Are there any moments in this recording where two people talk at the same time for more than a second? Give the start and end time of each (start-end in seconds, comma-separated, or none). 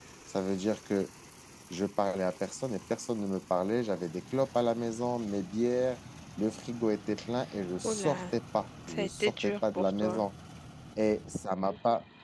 8.9-10.2